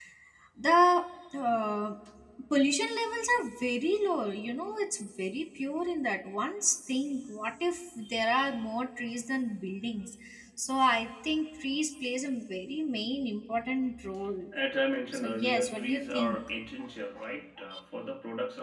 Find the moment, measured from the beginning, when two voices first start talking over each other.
15 s

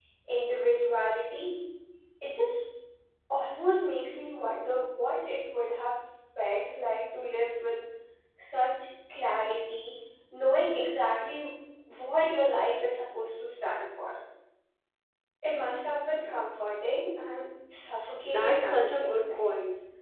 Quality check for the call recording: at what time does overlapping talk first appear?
18 s

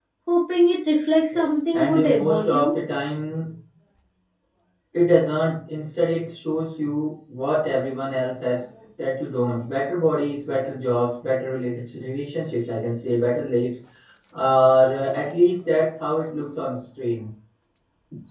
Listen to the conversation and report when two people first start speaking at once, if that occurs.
1 s

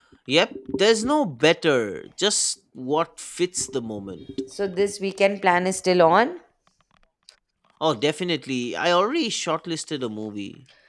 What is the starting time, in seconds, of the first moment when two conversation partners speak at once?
none

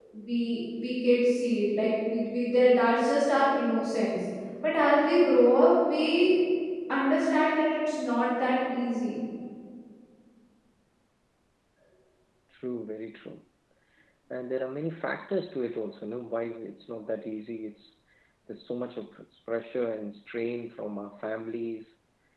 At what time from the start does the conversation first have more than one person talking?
none

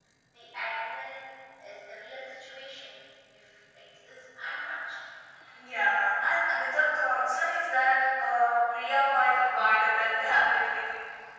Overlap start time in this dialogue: none

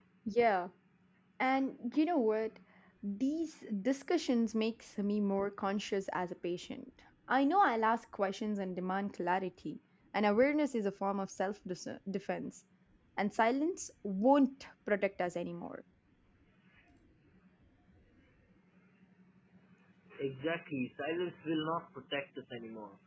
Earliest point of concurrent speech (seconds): none

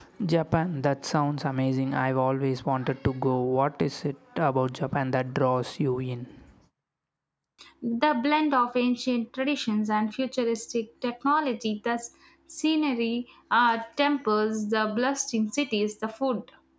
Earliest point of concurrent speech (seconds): none

